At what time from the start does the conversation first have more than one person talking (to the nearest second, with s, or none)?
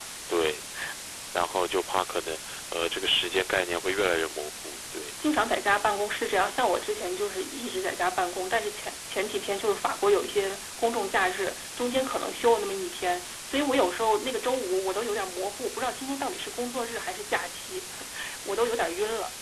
none